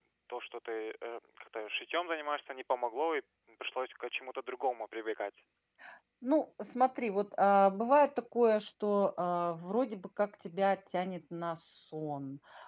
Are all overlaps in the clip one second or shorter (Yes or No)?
Yes